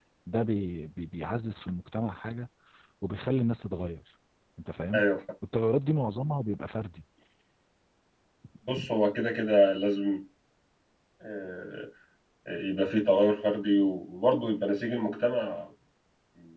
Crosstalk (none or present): none